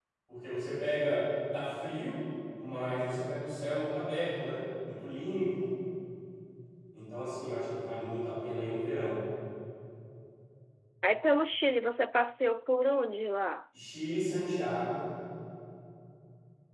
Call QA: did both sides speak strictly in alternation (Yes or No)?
Yes